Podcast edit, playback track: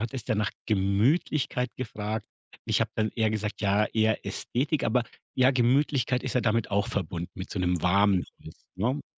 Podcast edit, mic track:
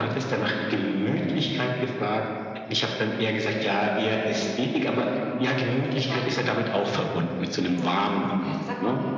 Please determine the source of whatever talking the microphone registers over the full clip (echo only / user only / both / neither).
both